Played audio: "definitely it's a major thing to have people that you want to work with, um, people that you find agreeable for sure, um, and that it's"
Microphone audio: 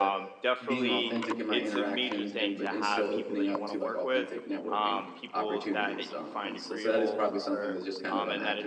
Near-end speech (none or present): present